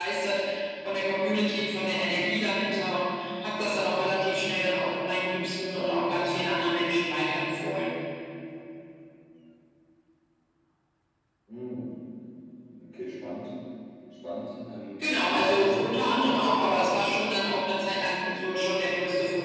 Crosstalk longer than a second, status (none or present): present